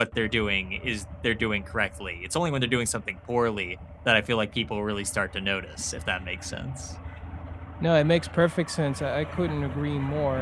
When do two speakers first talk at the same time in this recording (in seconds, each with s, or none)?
none